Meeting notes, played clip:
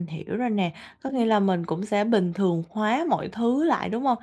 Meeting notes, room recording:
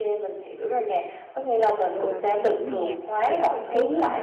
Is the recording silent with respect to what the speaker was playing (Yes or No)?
No